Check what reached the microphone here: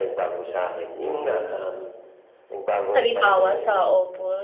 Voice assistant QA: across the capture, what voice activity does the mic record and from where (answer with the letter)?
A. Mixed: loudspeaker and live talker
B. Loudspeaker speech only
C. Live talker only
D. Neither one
A